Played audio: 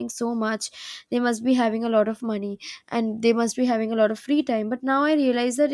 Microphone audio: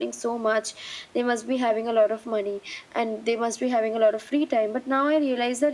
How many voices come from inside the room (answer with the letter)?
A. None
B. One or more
A